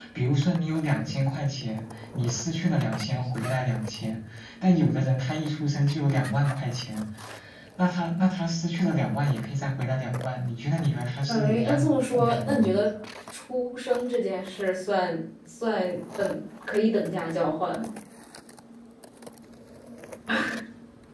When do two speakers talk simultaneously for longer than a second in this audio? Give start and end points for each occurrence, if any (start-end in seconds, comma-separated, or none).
11.3-12.7